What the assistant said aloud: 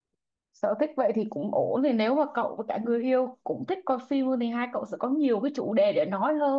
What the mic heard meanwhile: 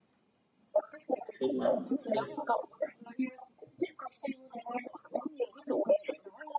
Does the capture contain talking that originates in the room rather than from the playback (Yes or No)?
Yes